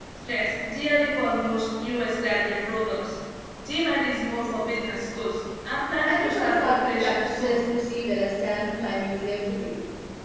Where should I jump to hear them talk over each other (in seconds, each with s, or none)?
6.0 s